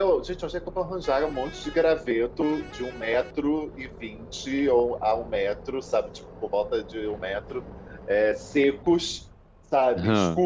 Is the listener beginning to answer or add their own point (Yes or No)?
No